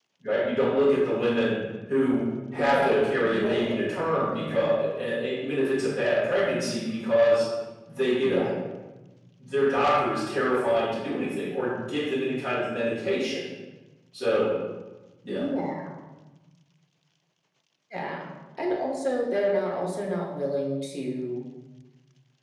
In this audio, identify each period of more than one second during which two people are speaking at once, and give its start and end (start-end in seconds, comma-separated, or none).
2.6-4.7